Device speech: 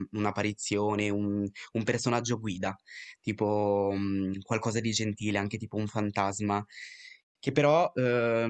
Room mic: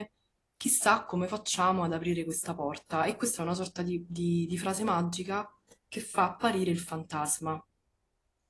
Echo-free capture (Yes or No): Yes